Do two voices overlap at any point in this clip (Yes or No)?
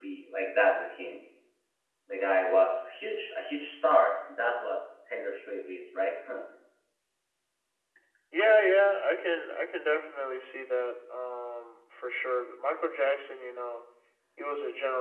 No